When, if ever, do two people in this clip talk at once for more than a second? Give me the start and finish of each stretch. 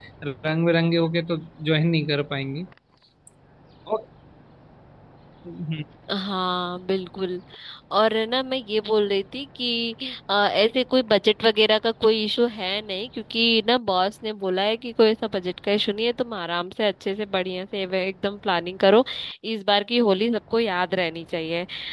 none

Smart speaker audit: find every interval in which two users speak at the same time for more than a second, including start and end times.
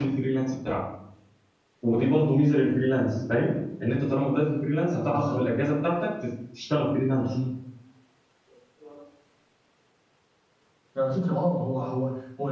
none

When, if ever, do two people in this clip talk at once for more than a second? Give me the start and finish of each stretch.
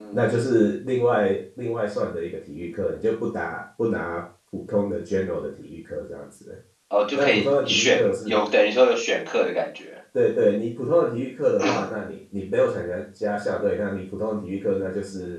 7.1-8.4

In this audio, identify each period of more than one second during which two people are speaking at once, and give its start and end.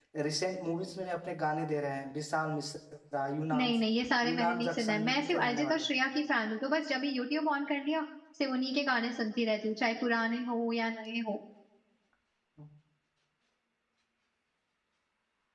4.2-5.8

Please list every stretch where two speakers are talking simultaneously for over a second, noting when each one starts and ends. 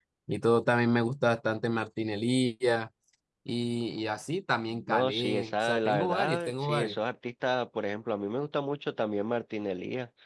4.9-7.0

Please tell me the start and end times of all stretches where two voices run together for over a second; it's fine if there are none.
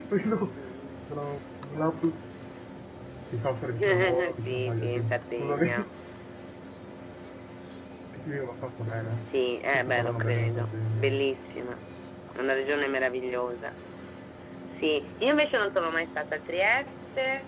3.7-5.6, 9.7-11.1

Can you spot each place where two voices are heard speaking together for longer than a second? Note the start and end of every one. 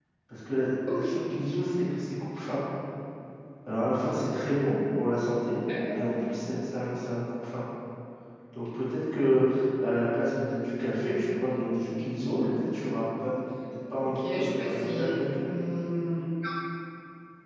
14.0-15.4

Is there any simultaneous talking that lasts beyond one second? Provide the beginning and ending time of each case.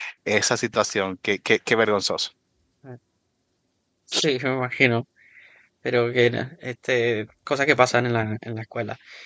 none

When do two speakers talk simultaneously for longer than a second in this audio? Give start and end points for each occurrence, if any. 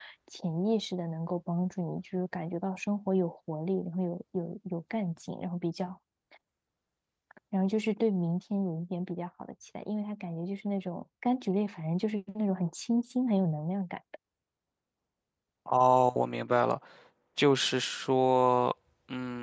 none

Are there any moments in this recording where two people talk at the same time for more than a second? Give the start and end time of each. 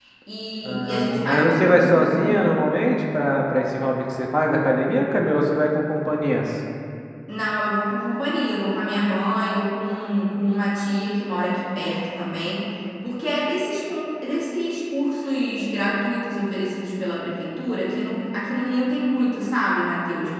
0.7-2.2

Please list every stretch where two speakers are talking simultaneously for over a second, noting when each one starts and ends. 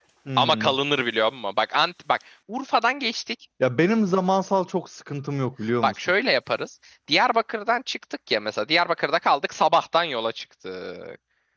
none

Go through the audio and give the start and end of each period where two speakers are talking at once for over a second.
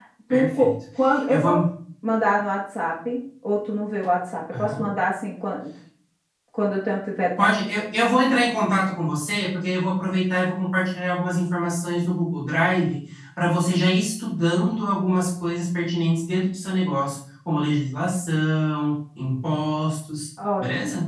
none

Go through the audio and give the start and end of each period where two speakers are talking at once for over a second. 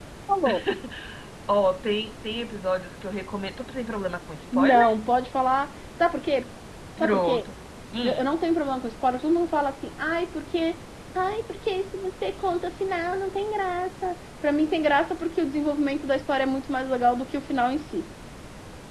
none

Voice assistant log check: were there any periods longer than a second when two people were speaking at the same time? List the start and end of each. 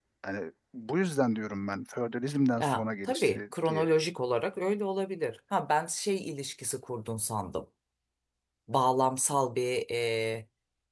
2.6-3.9

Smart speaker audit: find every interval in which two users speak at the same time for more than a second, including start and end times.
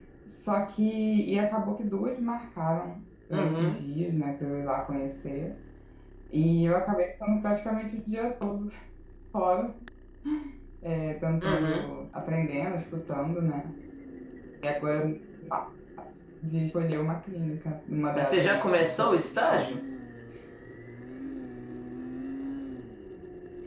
18.1-19.8

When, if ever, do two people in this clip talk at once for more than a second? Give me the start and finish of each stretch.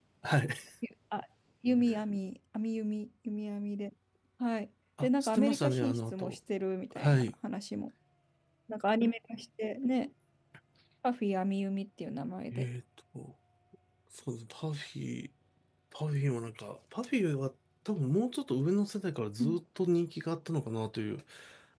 5.0-6.3

